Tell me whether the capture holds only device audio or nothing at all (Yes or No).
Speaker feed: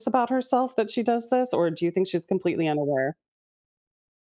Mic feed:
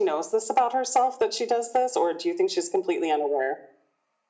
Yes